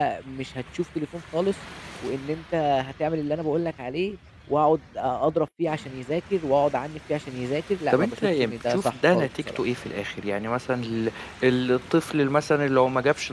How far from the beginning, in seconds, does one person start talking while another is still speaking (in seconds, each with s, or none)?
7.9 s